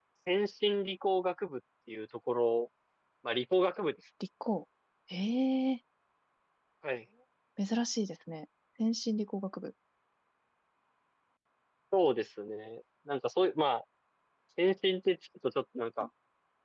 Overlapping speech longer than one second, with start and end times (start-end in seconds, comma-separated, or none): none